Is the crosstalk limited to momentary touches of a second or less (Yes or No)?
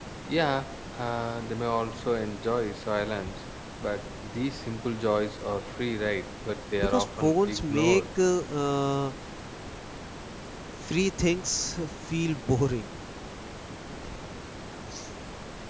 No